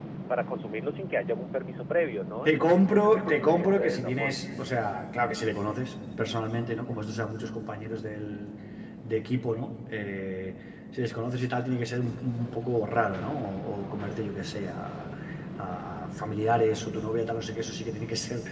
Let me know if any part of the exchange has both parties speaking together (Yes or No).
Yes